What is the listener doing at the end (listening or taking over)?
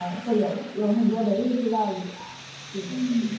taking over